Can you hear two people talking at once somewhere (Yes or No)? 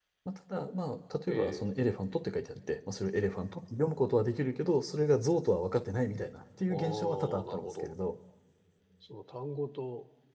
Yes